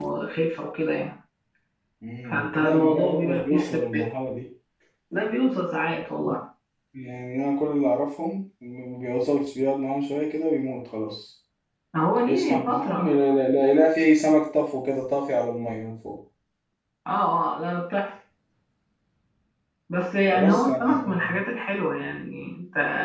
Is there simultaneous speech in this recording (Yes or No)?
Yes